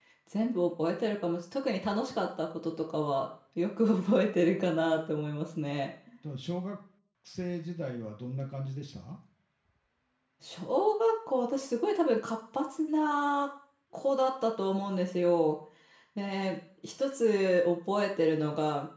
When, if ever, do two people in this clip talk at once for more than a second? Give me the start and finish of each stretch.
none

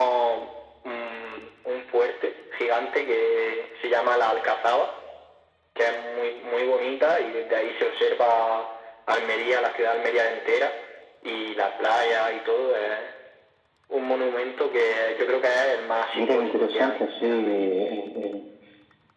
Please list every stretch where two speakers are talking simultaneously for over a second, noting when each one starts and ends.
16.1-17.7

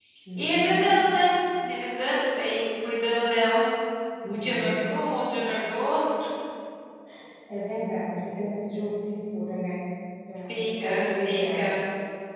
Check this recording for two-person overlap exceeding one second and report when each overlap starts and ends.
10.5-11.8

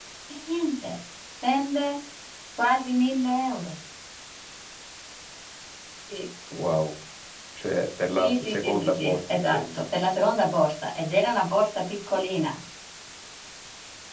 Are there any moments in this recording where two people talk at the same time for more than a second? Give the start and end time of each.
8.2-9.8

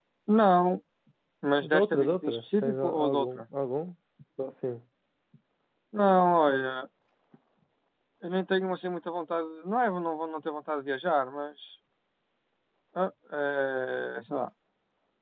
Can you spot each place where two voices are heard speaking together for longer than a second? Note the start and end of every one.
1.6-3.4

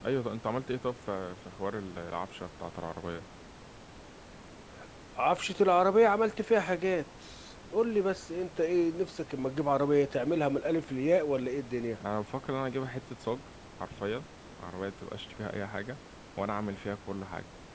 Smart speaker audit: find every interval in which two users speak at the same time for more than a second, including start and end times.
none

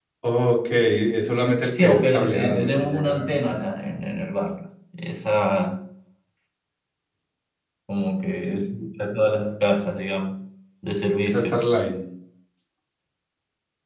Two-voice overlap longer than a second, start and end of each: 1.7-3.6

